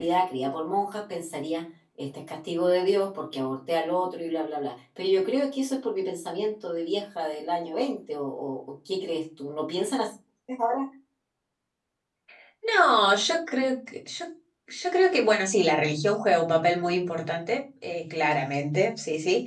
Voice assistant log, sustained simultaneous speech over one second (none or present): none